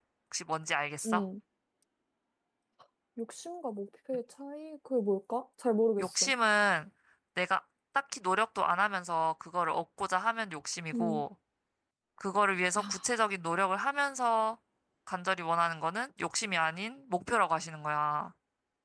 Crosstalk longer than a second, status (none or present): none